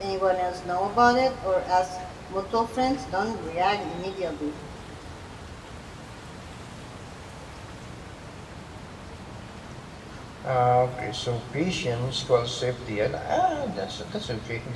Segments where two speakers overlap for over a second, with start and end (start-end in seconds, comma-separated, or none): none